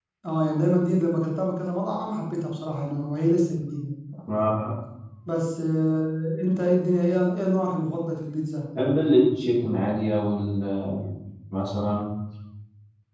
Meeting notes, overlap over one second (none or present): none